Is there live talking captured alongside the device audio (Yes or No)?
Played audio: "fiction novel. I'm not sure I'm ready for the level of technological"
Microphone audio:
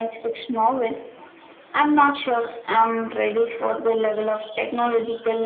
No